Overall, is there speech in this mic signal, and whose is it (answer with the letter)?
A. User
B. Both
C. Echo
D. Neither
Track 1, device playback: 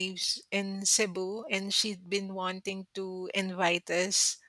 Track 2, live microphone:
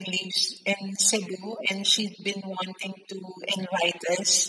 C